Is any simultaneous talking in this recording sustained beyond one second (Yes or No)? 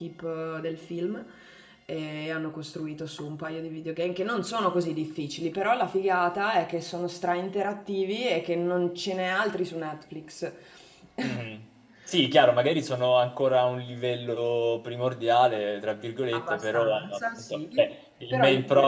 Yes